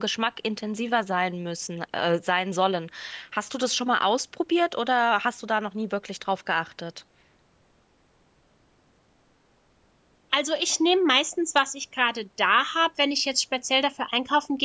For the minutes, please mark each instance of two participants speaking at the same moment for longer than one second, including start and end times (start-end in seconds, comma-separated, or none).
none